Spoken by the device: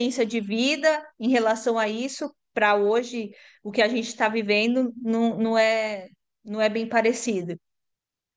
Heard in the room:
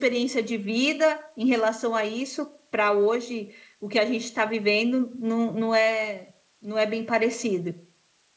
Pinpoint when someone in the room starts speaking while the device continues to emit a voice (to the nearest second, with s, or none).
none